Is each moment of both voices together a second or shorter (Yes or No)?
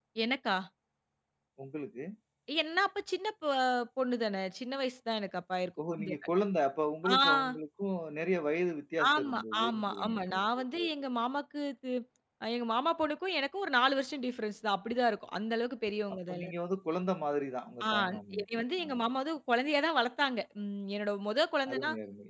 No